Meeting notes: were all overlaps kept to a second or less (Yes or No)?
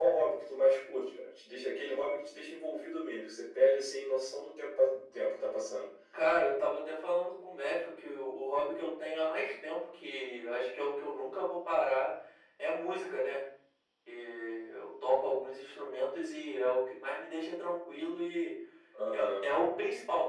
Yes